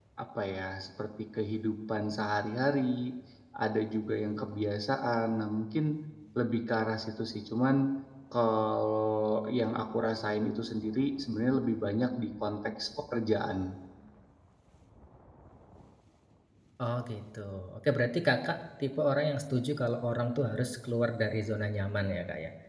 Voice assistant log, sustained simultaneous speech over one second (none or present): none